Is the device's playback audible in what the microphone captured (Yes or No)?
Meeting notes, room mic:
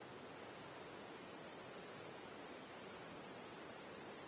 No